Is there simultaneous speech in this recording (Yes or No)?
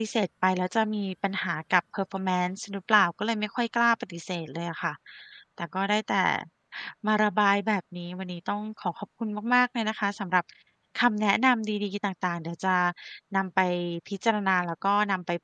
No